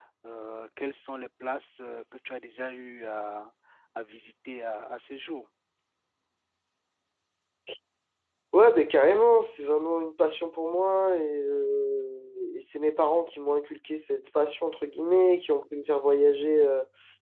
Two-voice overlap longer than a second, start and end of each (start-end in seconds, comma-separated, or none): none